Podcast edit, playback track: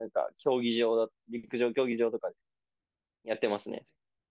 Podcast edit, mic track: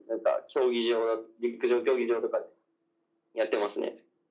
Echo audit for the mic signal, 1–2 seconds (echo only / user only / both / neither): echo only